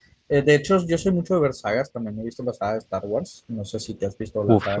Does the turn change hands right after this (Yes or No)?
Yes